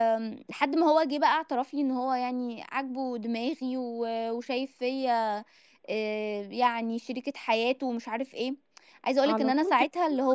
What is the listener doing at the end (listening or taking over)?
taking over